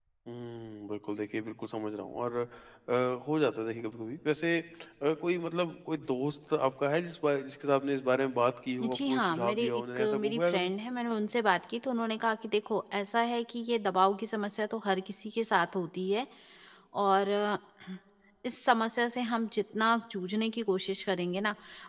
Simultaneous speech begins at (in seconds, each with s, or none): 8.8 s